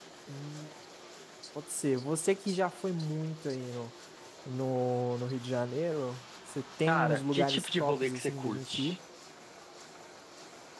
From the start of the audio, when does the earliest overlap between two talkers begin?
6.9 s

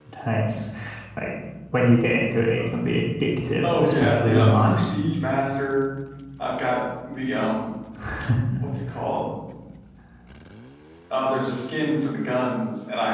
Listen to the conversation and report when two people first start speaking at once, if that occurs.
3.6 s

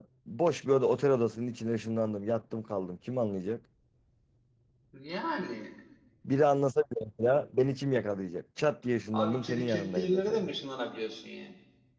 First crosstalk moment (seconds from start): 9.1 s

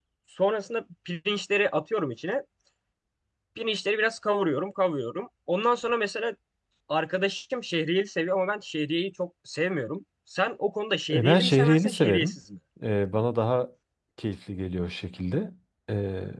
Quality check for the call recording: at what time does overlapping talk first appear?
11.1 s

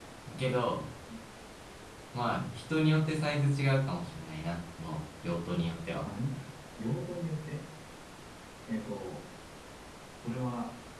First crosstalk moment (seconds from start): none

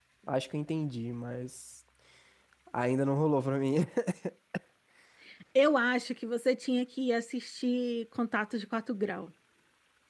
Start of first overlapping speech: none

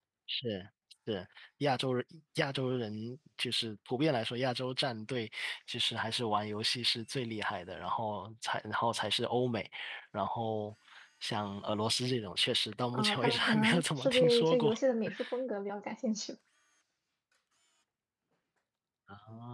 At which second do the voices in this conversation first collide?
12.9 s

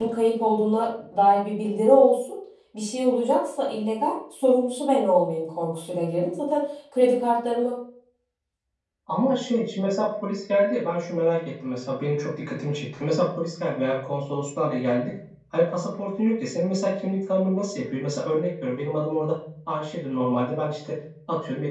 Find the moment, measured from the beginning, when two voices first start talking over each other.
none

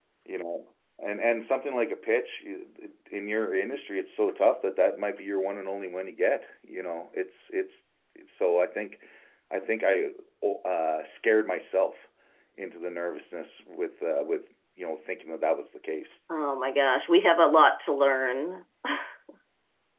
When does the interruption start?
none

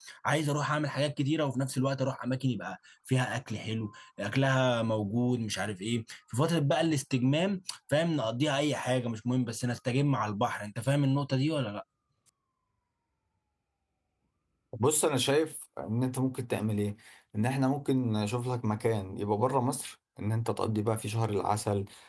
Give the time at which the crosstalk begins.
none

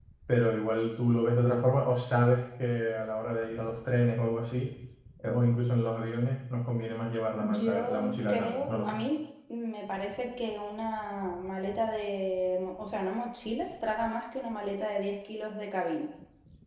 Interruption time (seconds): 7.4 s

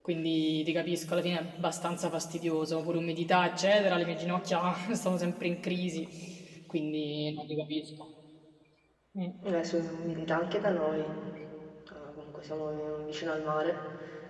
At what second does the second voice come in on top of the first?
none

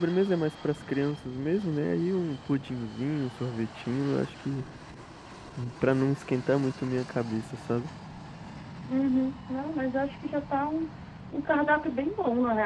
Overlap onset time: none

